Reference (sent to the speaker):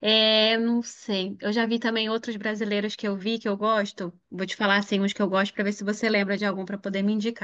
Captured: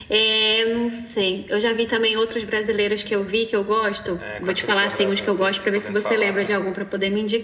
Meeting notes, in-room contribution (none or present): present